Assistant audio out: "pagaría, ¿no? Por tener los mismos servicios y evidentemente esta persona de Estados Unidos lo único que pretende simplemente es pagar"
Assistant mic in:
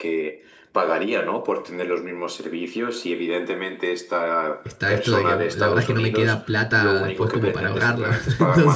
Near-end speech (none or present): present